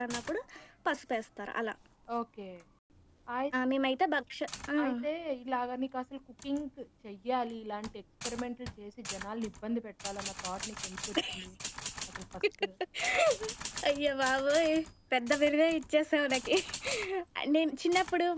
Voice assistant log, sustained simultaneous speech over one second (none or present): none